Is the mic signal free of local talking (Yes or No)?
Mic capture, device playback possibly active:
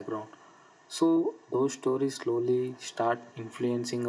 Yes